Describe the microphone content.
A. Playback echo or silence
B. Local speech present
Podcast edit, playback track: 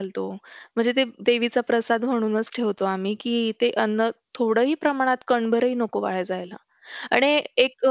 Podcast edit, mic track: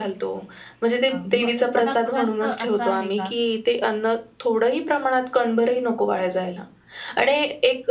B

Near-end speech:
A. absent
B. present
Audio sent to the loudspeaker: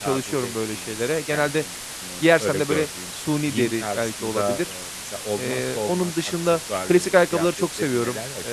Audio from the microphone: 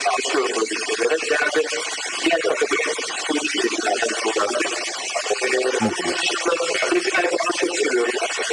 B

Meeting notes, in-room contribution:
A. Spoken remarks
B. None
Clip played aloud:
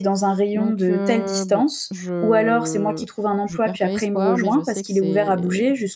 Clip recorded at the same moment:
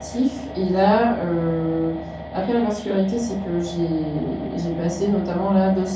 A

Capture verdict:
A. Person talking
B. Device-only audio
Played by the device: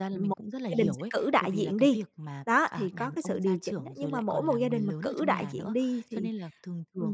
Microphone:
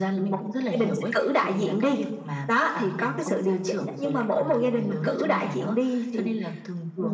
B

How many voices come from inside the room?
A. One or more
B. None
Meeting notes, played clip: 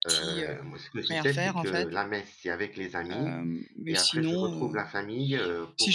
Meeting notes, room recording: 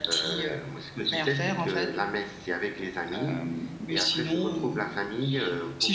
B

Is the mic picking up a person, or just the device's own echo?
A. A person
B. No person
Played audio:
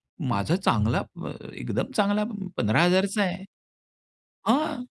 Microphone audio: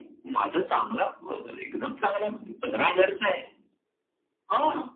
B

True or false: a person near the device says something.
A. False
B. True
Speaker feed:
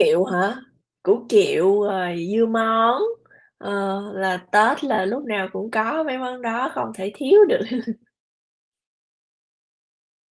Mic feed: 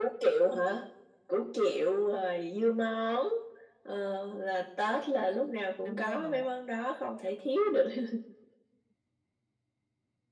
B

